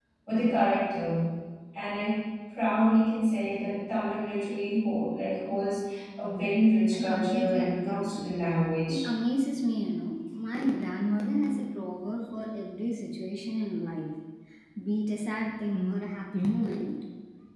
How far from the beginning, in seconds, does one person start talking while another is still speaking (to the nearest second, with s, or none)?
7 s